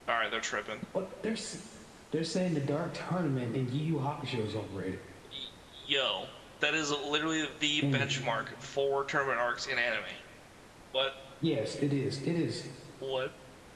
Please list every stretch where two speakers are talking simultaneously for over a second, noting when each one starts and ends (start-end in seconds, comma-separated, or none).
none